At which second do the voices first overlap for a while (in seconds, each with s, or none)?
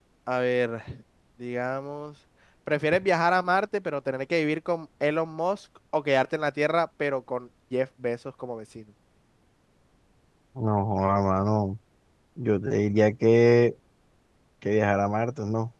none